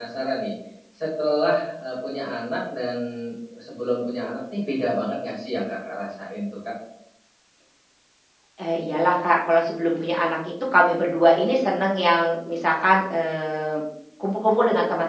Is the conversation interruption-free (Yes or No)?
Yes